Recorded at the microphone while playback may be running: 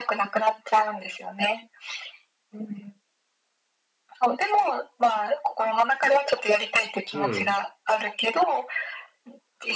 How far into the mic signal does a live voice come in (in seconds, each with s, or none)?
7.1 s